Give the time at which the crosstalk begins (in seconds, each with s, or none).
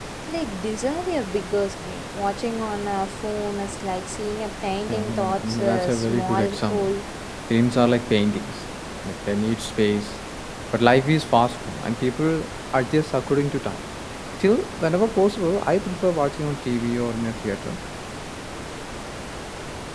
4.9 s